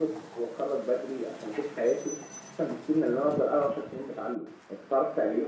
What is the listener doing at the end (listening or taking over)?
taking over